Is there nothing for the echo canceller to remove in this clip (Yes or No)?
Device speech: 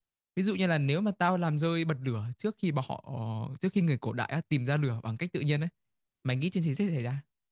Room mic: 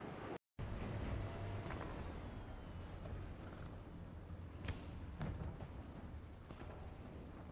Yes